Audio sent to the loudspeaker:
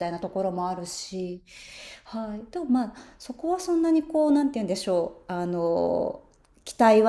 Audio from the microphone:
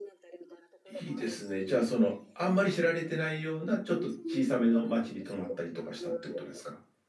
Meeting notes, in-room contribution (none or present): present